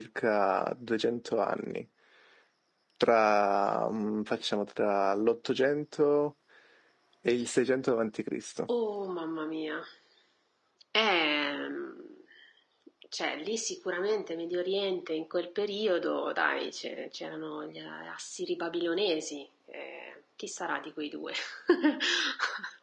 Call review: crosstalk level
none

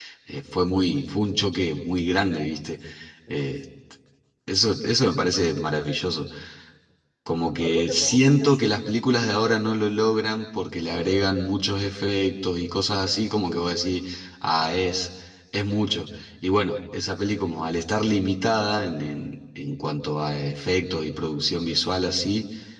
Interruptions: present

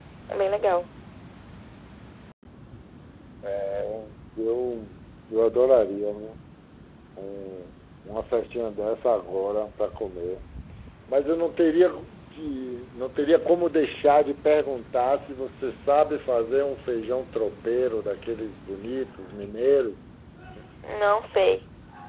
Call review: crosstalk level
none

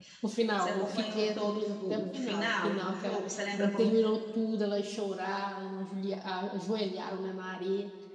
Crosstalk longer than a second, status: present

